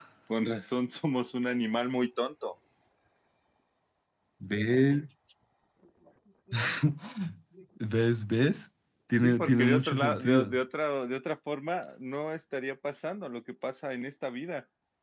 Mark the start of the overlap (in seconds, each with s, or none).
9.2 s